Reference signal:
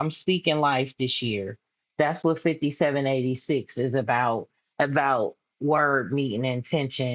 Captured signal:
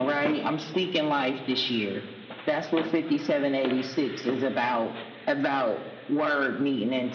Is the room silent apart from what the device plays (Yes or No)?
Yes